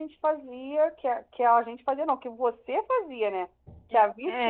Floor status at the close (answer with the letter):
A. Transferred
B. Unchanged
B